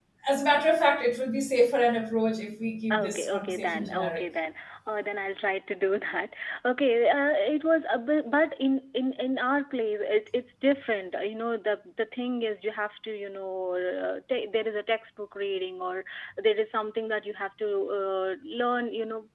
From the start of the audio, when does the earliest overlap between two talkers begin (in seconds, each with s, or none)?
2.9 s